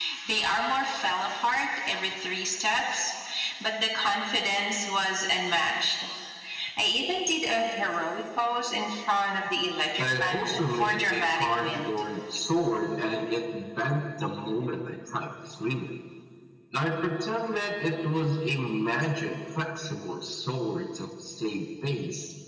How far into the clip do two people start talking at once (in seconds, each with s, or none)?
10.0 s